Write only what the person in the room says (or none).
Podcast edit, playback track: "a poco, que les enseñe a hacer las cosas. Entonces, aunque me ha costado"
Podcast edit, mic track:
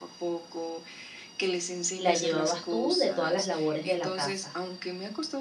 la llevabas tú de todas las labores de la casa?